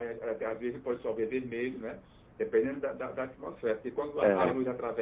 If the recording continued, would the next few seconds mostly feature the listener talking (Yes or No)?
No